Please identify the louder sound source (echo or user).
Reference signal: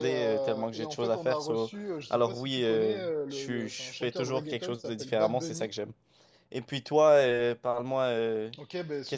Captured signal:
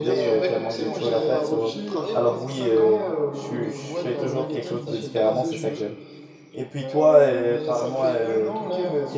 echo